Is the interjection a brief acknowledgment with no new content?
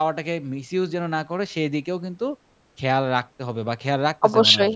No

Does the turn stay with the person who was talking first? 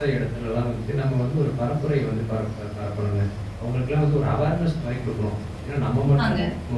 Yes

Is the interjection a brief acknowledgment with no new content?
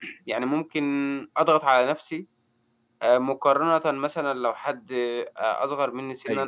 Yes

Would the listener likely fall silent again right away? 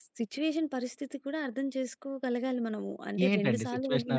No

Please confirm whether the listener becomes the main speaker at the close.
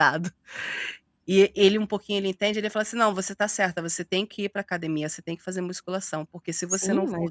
Yes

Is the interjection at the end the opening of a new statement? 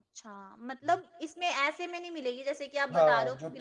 Yes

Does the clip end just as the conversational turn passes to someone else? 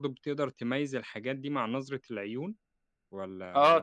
Yes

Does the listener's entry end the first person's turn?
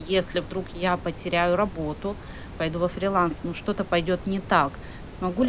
No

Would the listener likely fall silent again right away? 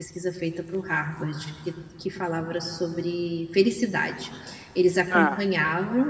Yes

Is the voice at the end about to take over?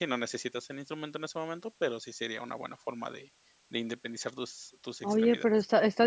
Yes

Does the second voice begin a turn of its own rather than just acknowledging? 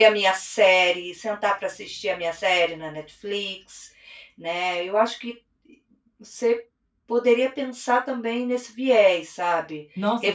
Yes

